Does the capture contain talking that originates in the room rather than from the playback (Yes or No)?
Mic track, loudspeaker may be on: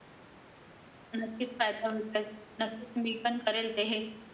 No